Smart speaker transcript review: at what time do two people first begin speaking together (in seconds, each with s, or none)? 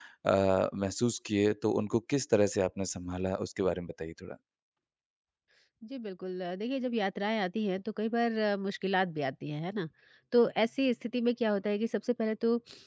none